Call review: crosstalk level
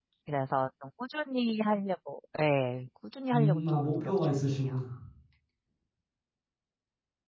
present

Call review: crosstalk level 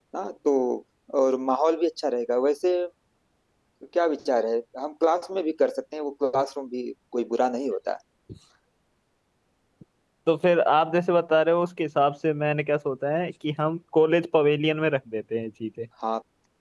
none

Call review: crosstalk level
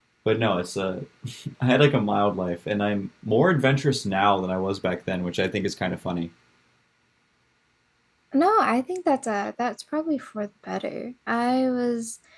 none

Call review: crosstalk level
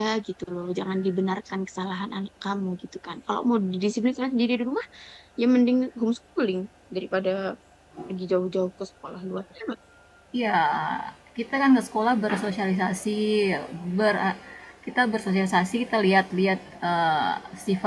none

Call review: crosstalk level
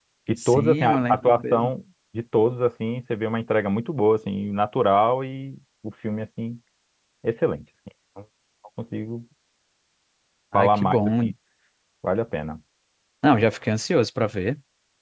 present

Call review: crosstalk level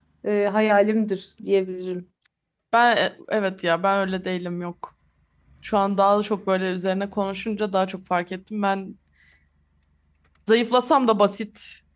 none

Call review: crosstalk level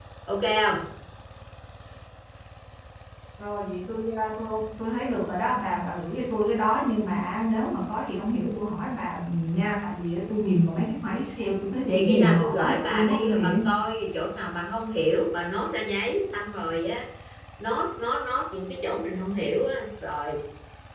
present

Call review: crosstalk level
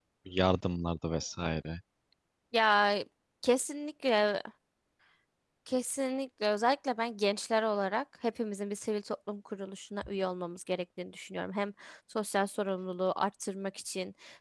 none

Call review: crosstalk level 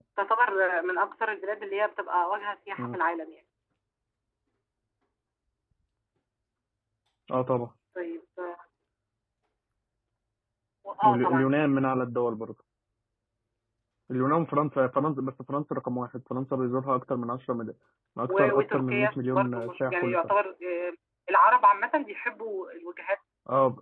present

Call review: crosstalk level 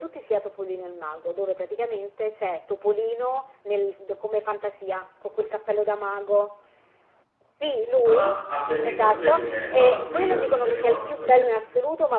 present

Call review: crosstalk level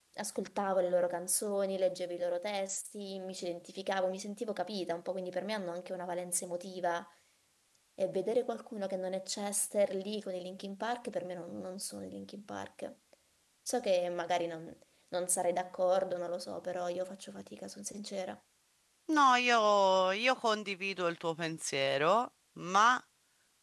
none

